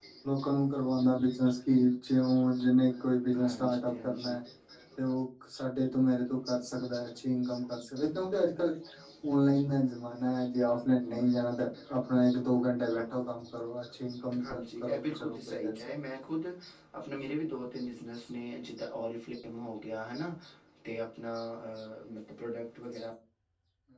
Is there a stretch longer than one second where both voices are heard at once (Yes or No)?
Yes